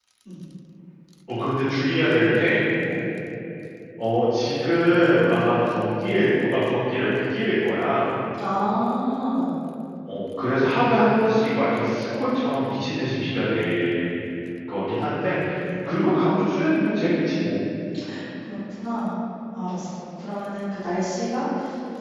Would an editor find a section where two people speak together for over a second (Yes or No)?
No